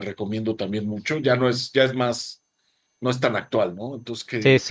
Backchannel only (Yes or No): No